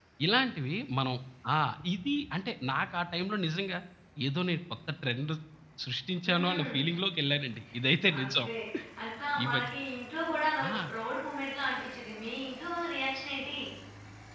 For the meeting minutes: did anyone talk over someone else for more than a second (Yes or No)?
No